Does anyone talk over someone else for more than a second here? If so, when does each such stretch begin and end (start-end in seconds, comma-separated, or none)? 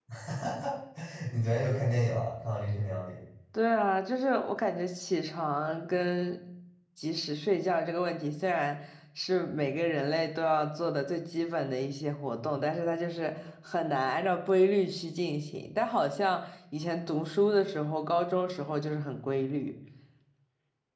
none